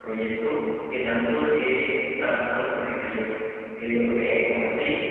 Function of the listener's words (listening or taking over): listening